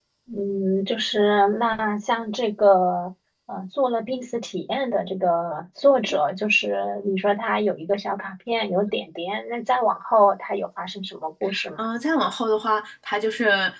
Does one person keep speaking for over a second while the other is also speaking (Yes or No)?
No